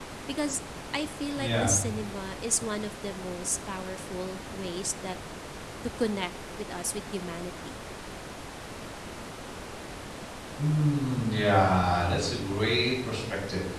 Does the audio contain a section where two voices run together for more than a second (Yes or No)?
No